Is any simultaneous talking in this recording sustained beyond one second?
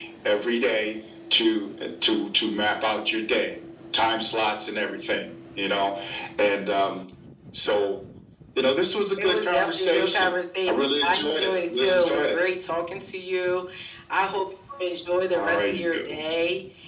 Yes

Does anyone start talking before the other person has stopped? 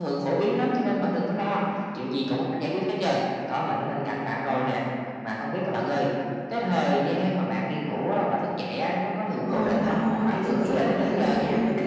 Yes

